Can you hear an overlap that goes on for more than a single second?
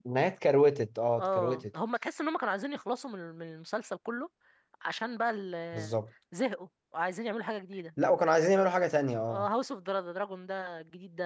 No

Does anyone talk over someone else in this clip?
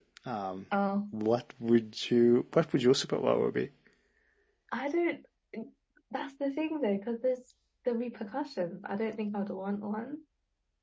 No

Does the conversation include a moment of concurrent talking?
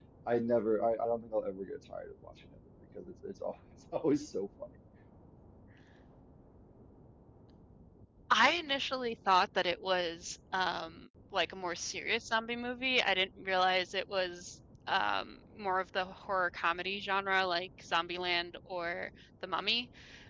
No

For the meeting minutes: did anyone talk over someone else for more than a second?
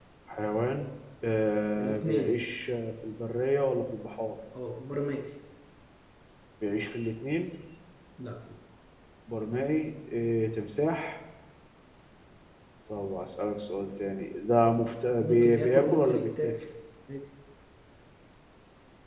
Yes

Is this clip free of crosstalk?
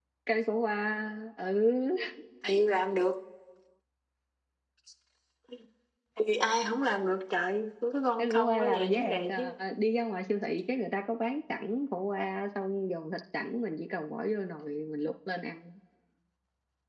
No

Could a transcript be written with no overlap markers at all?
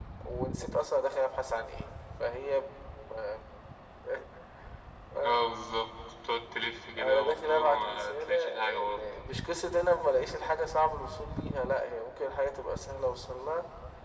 No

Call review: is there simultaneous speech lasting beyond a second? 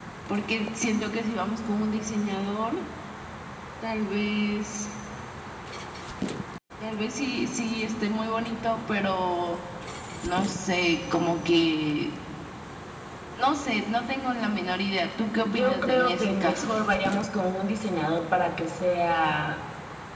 Yes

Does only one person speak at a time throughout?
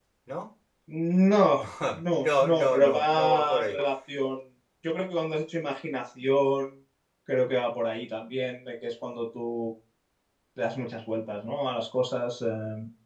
No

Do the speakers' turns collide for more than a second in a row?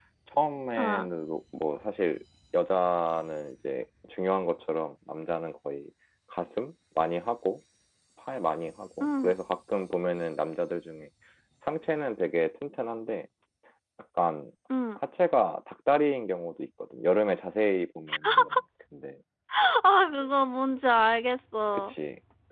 No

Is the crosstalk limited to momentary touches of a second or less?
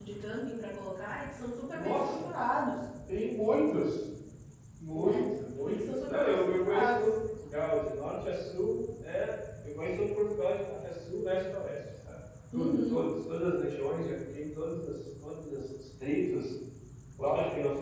No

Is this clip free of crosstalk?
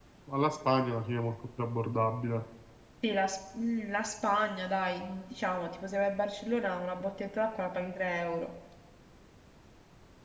Yes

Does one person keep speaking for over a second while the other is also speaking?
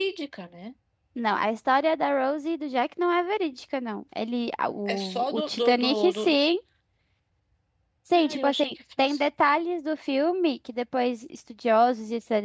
Yes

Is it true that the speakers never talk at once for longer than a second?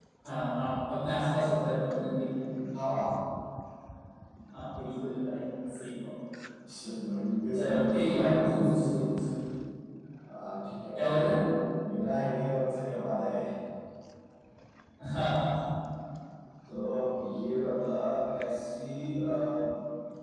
No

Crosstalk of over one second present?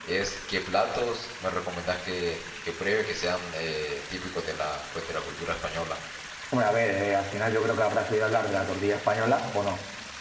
No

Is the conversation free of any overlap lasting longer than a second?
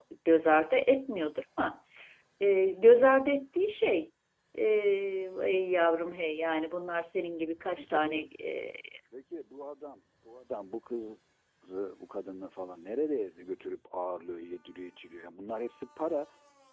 Yes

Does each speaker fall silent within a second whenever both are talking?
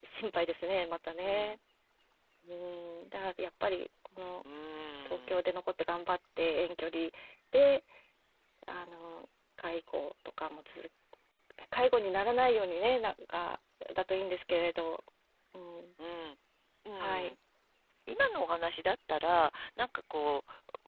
Yes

